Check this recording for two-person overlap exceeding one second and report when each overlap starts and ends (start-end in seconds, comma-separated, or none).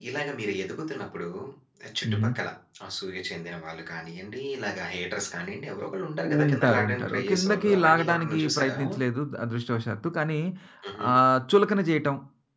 6.4-8.8